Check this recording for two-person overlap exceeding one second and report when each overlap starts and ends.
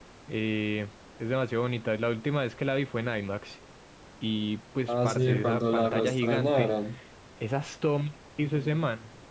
4.9-6.7

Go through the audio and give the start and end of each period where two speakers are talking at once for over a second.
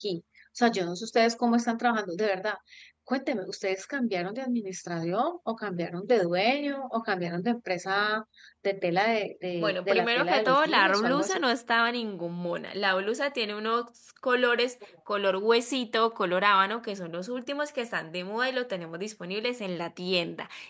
9.6-11.4

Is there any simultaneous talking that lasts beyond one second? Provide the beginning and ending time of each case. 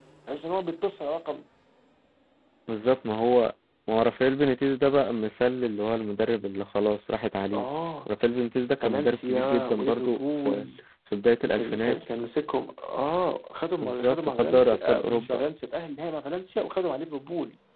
8.8-10.7, 13.8-15.4

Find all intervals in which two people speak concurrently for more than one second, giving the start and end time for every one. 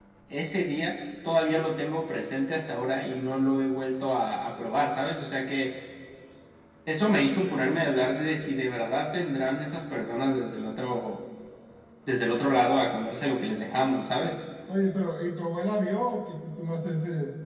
none

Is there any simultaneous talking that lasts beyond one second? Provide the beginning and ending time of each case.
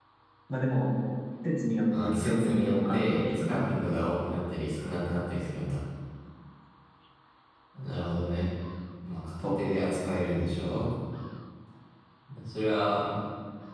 2.0-3.6

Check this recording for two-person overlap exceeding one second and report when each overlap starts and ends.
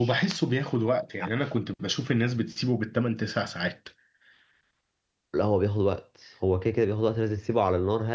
none

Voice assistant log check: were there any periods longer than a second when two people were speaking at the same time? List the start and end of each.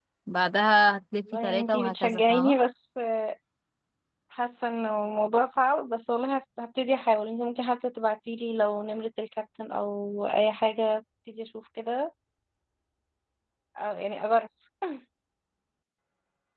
1.3-2.6

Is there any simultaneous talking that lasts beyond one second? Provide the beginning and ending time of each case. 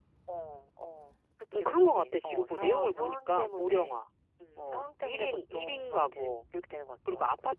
1.5-4.0, 4.6-6.3

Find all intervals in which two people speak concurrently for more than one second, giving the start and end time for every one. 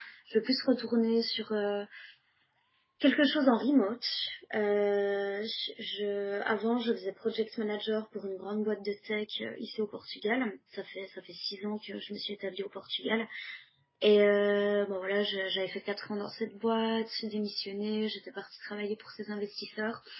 none

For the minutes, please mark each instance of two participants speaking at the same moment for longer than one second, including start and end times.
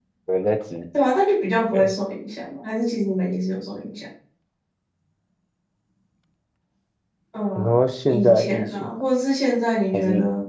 7.6-8.9

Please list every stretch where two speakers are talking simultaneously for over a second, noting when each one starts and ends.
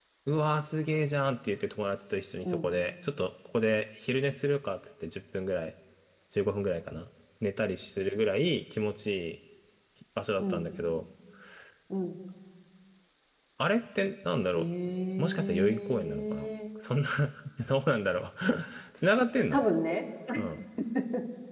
15.2-16.5

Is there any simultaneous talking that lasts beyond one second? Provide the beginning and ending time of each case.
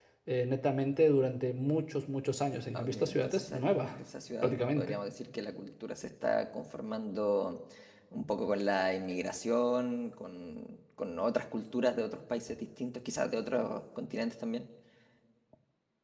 2.7-3.9

